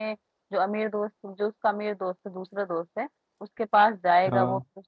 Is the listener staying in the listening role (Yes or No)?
Yes